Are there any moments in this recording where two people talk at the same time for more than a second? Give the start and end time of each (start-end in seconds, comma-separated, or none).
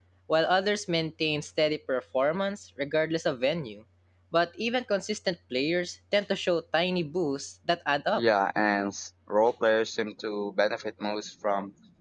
none